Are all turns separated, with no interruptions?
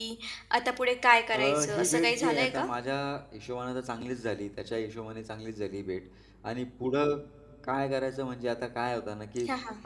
No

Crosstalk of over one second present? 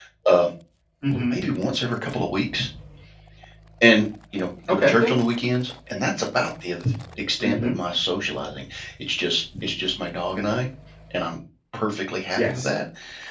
No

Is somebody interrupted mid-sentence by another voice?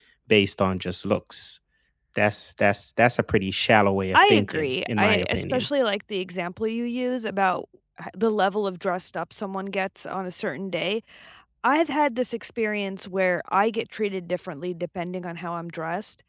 Yes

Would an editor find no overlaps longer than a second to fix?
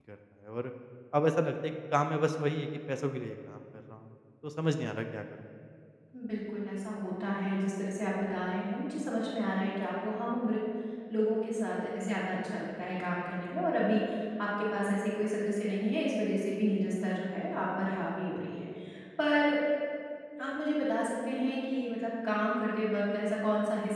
Yes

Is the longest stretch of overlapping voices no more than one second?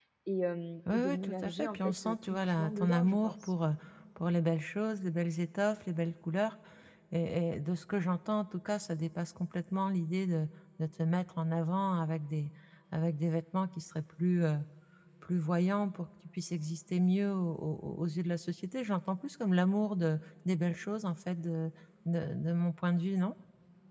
No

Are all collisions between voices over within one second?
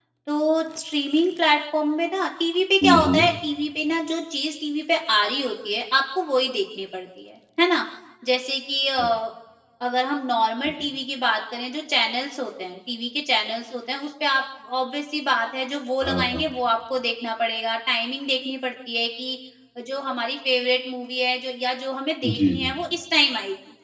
Yes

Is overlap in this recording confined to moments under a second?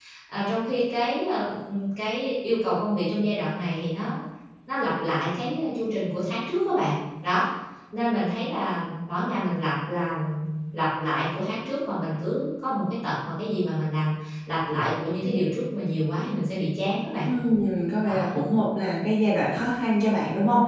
Yes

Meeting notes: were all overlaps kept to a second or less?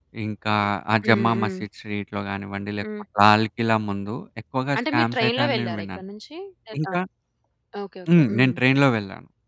No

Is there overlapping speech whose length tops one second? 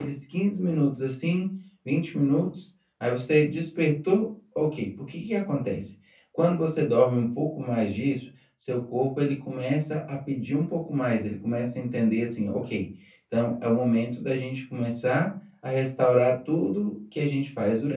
No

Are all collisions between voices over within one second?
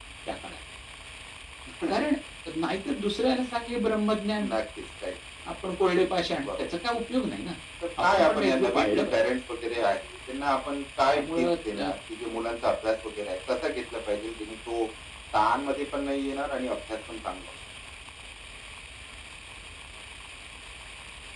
No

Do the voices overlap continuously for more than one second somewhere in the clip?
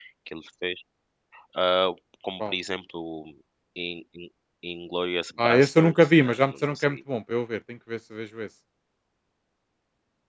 Yes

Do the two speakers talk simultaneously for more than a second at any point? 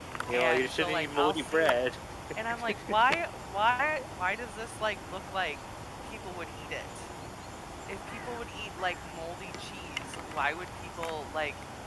Yes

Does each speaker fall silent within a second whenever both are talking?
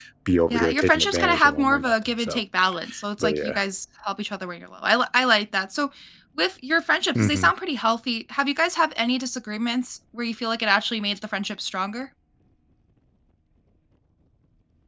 No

